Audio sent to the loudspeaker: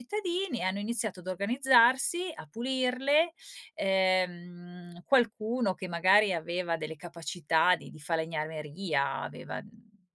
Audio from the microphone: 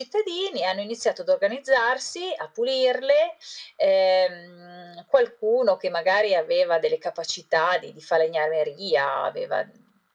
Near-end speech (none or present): none